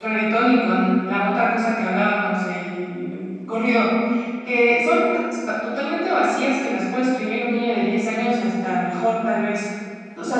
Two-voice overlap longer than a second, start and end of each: none

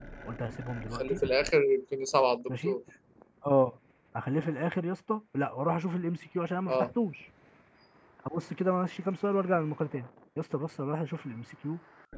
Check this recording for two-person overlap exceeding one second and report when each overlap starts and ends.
none

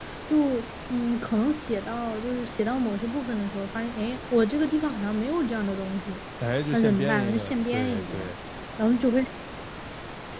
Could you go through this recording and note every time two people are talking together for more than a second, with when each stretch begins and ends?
6.7-8.3

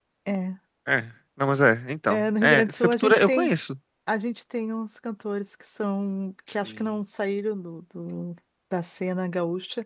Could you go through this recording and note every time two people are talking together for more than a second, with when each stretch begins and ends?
2.1-3.5

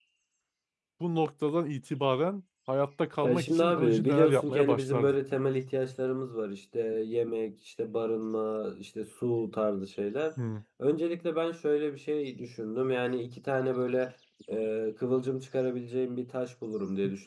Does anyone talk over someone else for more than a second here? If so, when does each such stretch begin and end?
3.2-5.1

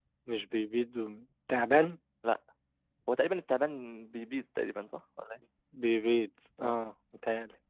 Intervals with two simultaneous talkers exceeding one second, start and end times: none

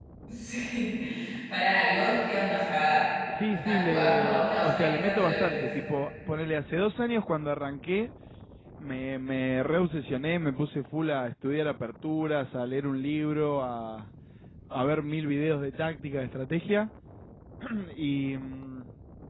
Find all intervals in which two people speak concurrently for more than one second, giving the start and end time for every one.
3.5-5.7

